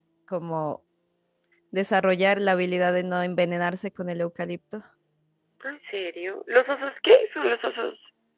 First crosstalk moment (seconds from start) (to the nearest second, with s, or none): none